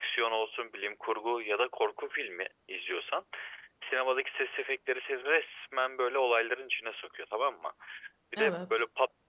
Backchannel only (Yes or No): Yes